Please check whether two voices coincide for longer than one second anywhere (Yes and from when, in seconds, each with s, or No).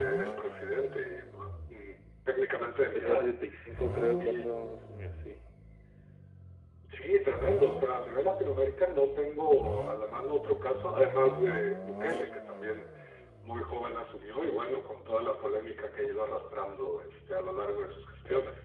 No